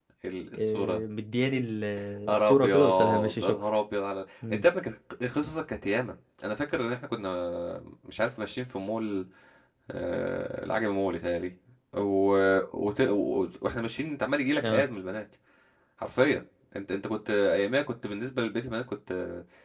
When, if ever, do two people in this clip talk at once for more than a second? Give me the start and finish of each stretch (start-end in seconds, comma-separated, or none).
2.3-3.6